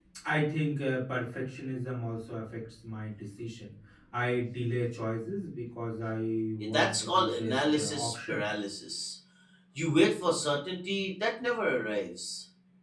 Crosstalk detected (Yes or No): Yes